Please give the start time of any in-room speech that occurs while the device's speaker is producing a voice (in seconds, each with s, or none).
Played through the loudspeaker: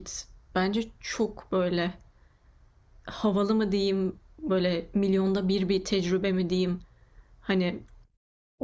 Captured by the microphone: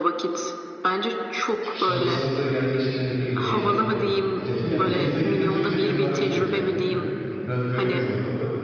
1.6 s